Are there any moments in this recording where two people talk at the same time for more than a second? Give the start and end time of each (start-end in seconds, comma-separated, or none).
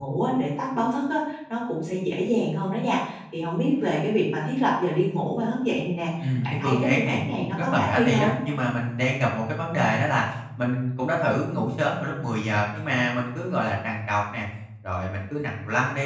6.4-8.3